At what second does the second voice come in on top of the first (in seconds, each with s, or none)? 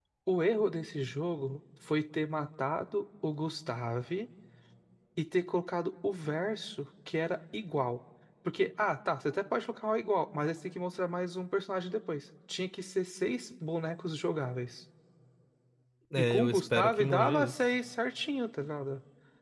16.2 s